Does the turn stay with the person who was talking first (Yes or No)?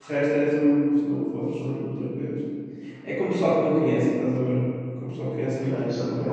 No